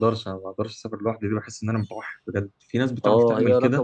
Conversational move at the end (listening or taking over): taking over